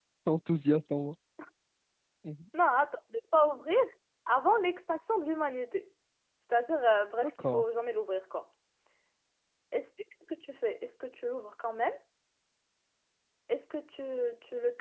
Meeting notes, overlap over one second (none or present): none